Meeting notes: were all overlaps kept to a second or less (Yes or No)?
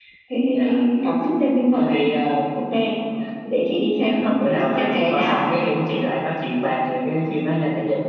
No